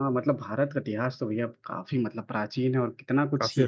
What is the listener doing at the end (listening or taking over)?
listening